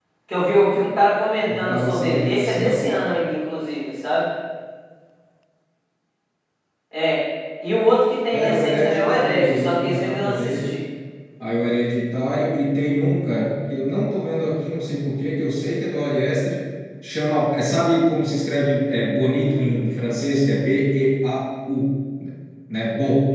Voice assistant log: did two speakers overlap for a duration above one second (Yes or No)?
Yes